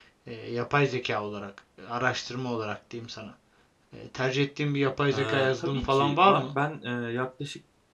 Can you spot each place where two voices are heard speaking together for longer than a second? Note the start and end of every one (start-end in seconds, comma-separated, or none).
5.1-6.5